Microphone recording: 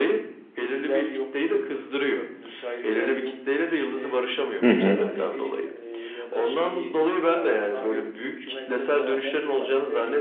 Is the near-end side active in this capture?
Yes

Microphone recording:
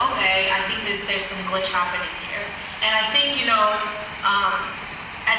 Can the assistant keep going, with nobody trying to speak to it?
Yes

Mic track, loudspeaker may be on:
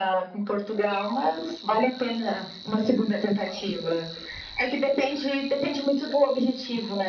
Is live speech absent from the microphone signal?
Yes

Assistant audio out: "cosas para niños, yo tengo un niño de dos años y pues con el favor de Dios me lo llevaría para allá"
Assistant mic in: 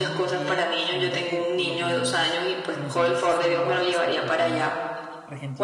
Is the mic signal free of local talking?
No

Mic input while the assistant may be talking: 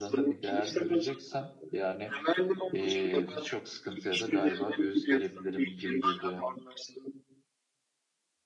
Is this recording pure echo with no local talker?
No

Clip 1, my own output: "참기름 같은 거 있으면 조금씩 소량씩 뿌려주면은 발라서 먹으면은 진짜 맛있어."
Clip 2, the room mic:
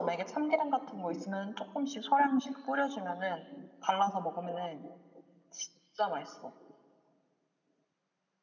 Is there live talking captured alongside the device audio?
No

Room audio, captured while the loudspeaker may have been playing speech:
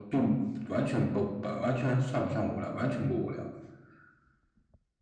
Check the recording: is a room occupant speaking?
No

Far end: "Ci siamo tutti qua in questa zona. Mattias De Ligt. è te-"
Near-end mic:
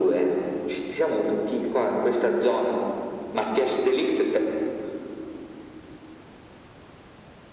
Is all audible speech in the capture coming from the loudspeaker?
Yes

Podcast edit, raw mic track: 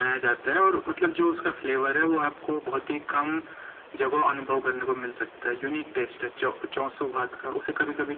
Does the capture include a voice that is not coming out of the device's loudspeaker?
No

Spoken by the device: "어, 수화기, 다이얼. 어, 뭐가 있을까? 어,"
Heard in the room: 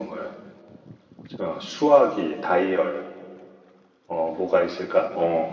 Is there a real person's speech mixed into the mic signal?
No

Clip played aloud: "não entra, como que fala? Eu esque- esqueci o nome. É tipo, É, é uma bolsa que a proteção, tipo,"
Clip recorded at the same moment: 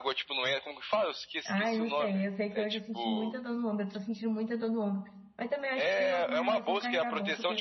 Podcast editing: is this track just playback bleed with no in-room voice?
No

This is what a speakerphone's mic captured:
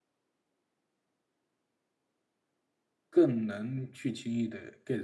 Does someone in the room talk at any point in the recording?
Yes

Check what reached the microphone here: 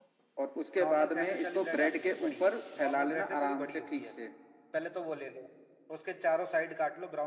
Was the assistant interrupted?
Yes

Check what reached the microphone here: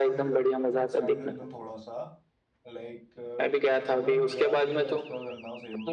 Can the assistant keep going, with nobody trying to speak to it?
No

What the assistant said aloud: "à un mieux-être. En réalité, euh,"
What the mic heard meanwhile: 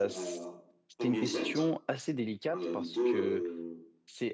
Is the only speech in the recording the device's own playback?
No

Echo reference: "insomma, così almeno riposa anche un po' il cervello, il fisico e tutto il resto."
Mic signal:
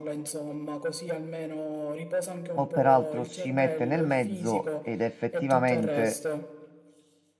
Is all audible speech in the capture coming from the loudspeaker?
No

